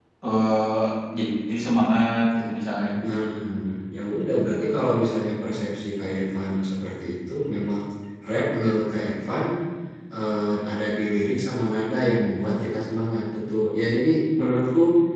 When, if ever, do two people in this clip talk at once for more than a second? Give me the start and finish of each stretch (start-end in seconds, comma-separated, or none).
none